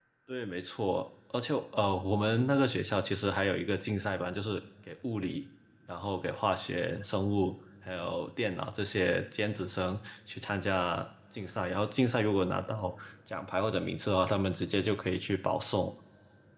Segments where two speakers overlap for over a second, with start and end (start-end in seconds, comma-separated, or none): none